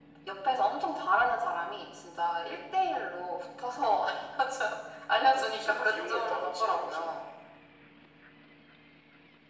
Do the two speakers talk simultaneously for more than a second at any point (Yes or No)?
Yes